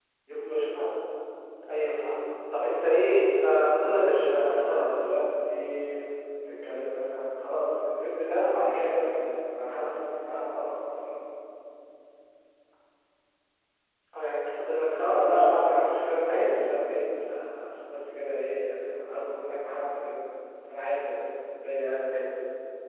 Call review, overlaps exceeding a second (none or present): present